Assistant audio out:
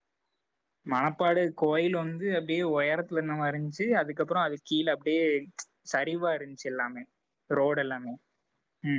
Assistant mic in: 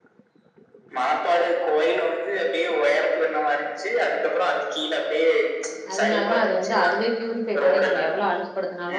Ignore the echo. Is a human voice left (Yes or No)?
Yes